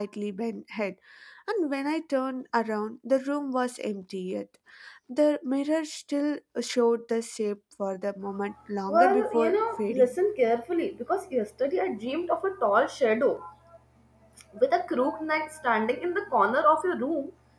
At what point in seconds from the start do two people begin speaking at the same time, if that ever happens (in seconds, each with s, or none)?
8.9 s